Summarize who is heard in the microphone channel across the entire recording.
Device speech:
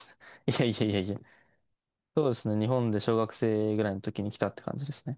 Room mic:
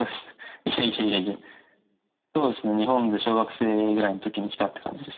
echo only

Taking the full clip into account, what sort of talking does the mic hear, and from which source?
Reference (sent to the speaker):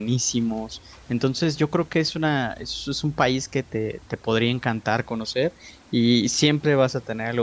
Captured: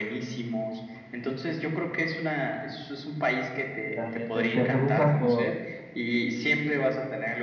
both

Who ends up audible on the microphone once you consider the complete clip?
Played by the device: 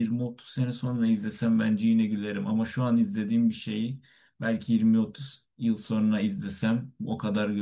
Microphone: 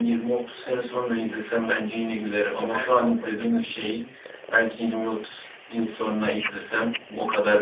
both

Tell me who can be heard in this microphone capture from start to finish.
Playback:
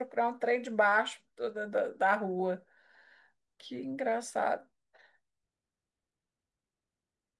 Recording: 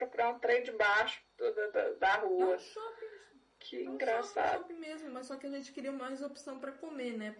both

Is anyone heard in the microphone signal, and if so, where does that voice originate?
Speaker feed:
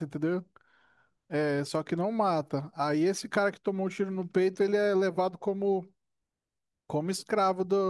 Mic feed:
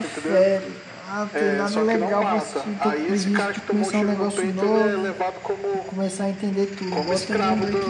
both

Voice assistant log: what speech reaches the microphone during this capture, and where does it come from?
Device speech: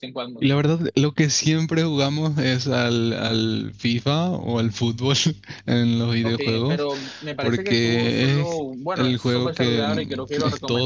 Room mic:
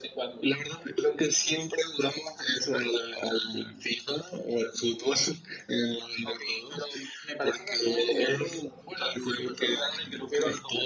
echo only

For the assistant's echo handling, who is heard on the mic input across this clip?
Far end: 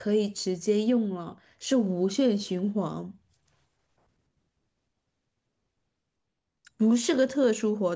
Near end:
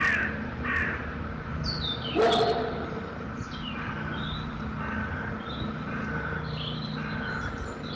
neither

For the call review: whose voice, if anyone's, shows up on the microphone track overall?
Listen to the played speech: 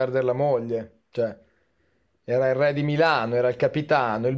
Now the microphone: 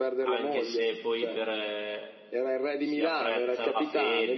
both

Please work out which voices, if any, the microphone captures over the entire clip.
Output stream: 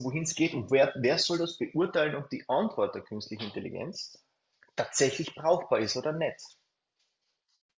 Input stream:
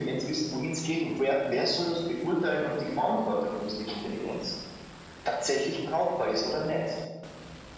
echo only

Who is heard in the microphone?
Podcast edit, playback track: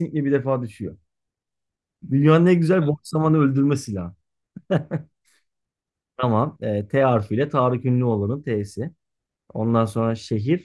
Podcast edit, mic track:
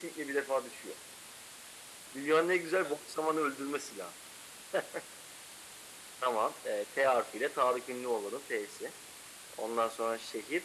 echo only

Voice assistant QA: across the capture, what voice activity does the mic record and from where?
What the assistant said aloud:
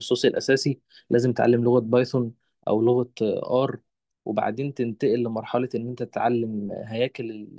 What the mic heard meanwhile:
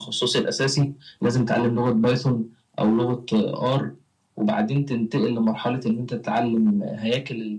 echo only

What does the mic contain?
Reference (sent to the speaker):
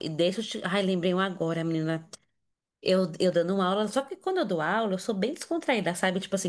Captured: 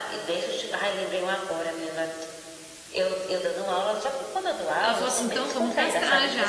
both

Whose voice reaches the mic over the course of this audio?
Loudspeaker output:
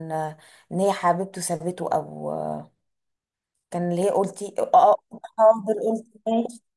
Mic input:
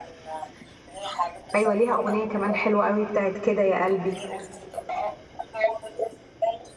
both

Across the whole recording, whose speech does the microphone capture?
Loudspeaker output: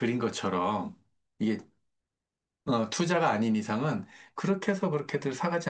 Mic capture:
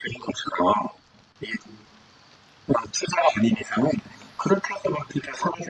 echo only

